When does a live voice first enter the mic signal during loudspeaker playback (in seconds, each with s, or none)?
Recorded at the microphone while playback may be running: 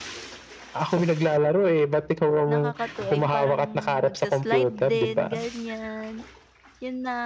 2.5 s